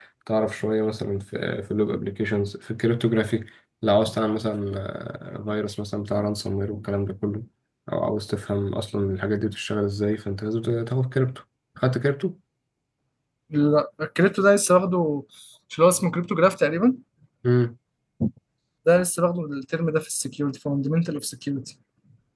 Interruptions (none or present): none